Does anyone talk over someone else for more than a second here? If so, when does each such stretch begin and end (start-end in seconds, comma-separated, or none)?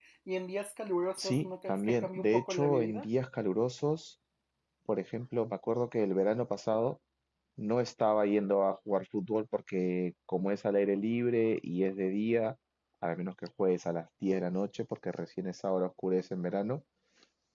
1.2-3.1